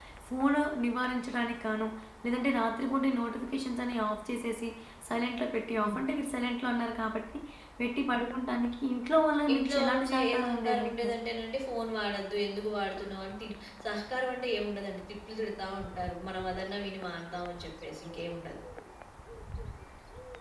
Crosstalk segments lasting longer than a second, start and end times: 9.5-11.1

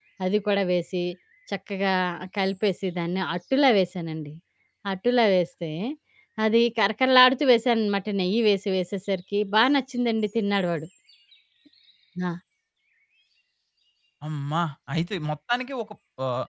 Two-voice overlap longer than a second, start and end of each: none

